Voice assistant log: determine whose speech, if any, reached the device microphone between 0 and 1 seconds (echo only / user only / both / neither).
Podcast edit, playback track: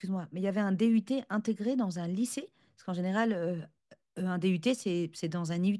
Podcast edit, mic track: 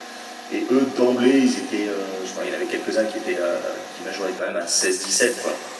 user only